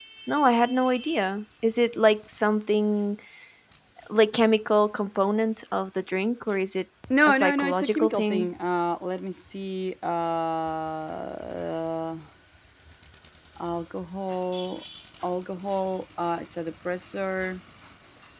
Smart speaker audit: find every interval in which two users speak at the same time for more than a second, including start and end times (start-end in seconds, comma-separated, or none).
7.3-8.5